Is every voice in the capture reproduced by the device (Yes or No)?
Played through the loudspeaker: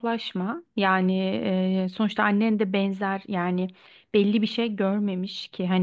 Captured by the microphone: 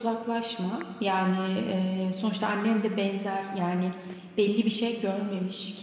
Yes